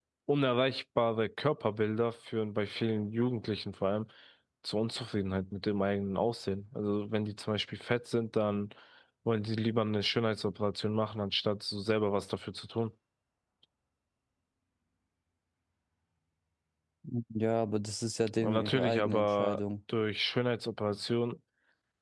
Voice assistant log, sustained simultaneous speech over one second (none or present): present